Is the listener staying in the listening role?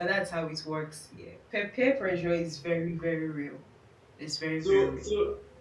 No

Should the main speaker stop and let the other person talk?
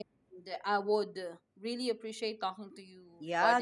Yes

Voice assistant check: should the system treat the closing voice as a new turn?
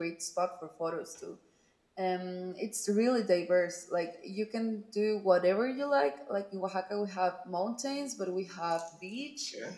No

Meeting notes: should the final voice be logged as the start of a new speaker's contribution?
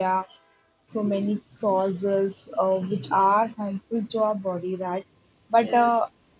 No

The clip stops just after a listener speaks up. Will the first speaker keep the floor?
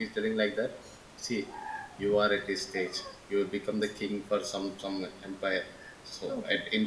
Yes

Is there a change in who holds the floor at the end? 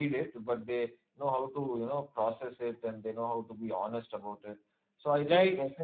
No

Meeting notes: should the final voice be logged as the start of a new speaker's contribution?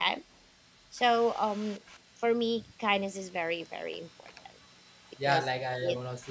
Yes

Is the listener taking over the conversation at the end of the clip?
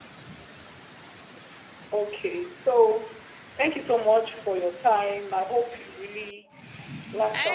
Yes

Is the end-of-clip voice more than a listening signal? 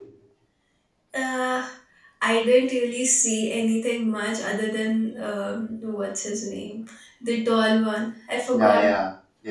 Yes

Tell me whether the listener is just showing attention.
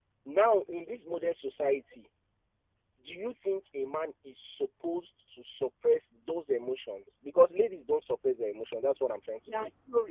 No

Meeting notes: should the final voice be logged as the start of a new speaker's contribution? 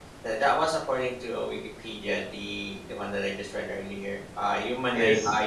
No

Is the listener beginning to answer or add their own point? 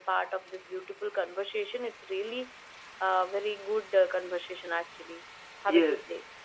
Yes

